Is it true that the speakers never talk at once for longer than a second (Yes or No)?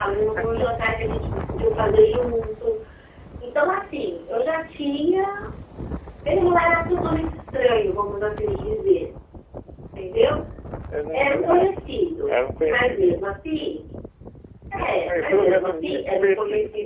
No